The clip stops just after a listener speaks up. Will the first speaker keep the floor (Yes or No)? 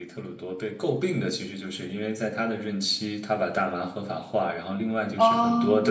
Yes